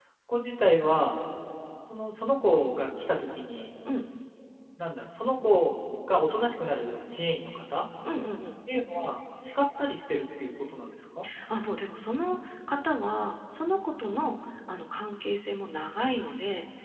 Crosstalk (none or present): none